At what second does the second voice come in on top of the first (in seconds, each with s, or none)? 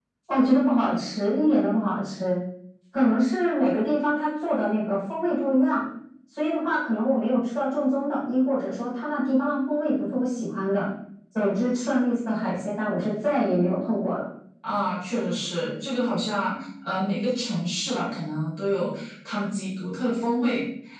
none